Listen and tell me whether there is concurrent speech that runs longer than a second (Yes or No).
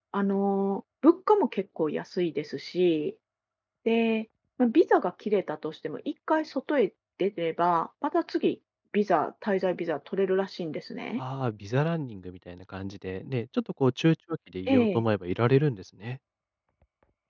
No